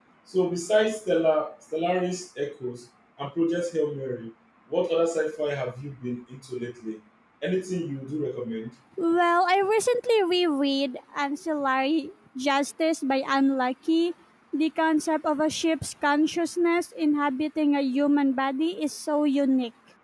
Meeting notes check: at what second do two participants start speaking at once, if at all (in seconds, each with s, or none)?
none